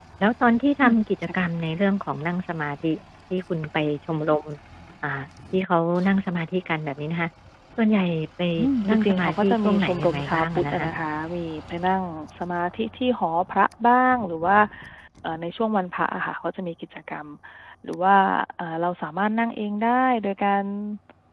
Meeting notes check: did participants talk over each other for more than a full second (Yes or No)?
Yes